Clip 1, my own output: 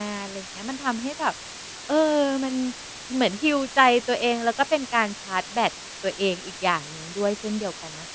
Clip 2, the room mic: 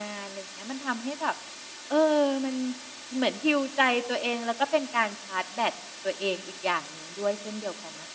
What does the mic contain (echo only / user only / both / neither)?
echo only